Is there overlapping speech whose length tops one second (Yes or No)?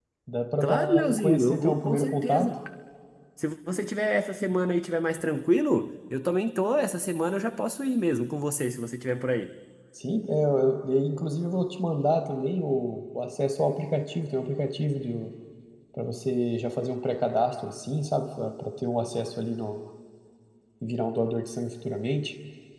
Yes